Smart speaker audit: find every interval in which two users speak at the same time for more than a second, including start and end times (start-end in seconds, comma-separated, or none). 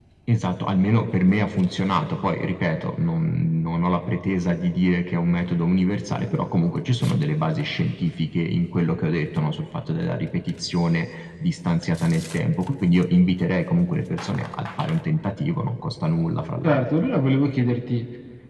none